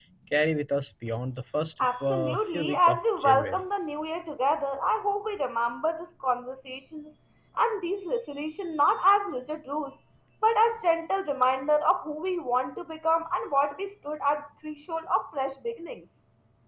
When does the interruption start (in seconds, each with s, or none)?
1.8 s